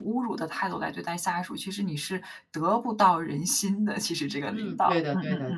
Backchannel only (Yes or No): No